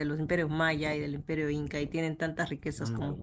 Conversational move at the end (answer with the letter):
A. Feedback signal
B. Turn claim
A